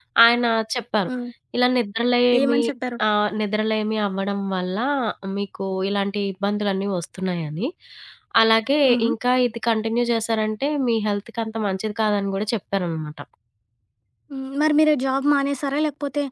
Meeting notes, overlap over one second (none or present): none